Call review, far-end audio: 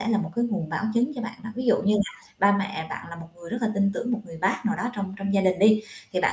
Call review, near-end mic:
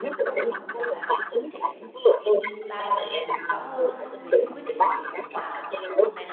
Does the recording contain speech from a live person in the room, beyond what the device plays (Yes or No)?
Yes